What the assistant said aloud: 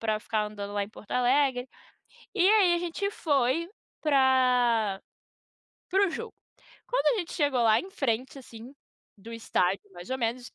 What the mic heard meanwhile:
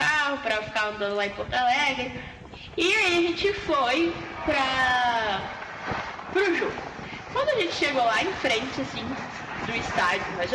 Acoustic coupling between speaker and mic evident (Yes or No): Yes